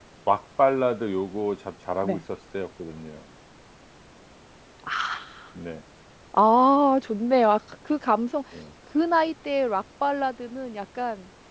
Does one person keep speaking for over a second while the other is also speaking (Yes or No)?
No